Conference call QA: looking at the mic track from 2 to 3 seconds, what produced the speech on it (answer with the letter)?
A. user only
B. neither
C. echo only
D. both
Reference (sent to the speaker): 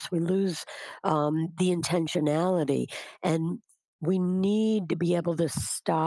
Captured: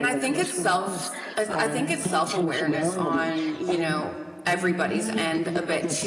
D